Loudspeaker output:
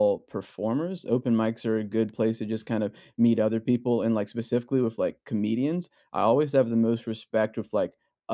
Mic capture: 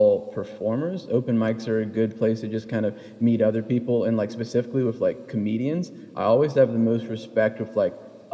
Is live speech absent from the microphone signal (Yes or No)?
Yes